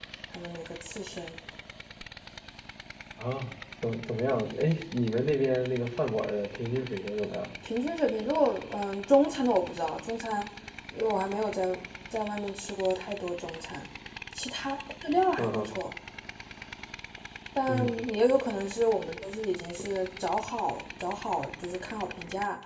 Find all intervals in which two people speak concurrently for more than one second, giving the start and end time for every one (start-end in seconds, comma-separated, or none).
none